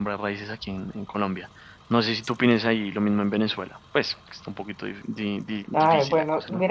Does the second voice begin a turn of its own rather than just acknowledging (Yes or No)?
Yes